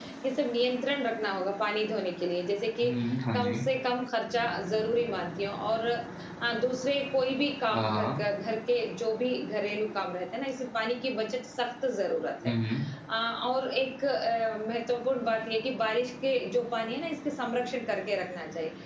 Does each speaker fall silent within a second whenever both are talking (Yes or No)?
Yes